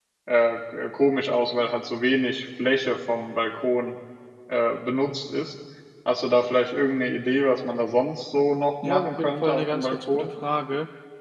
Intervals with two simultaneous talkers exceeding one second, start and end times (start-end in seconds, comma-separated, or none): 8.8-10.3